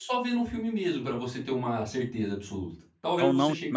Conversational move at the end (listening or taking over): taking over